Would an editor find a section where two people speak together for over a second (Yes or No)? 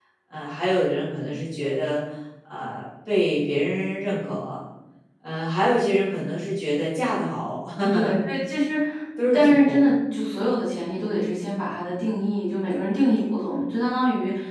No